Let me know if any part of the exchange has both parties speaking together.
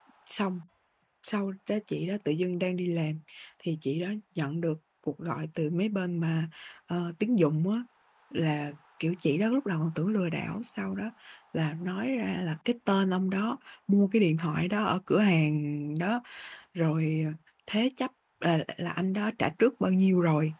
No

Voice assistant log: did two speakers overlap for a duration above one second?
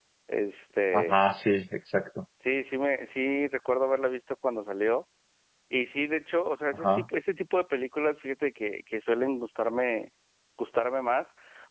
No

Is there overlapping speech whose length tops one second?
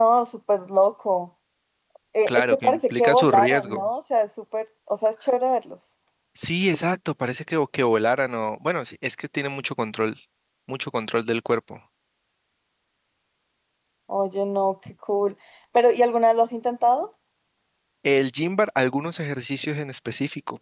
Yes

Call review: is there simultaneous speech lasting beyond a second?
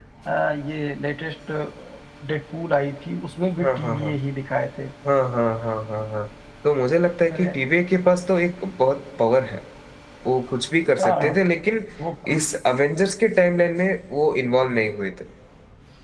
No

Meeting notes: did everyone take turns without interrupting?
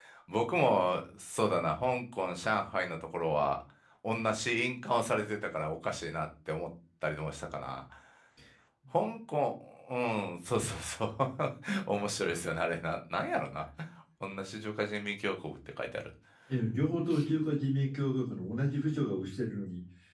Yes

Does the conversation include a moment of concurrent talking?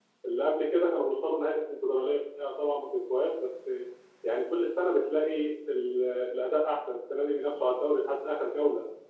No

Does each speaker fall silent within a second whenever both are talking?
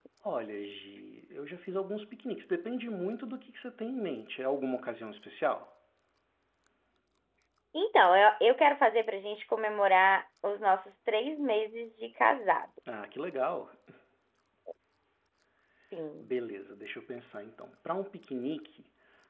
Yes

